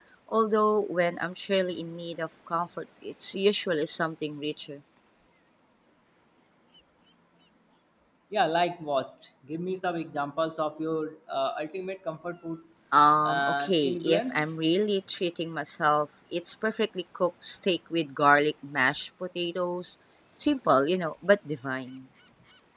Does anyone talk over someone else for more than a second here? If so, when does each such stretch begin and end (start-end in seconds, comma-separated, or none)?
13.2-14.5